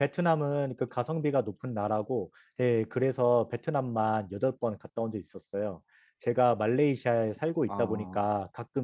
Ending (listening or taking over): listening